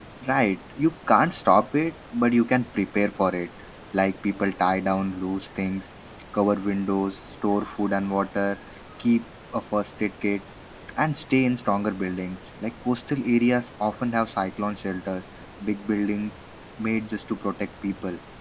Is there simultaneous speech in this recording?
No

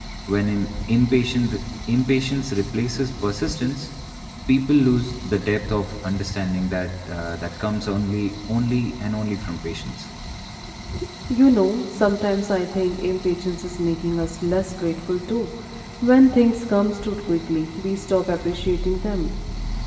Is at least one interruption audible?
No

